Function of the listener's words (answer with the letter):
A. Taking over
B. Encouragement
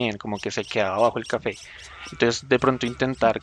B